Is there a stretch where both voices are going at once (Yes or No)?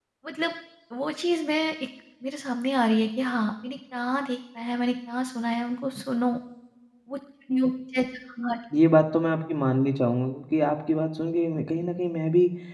No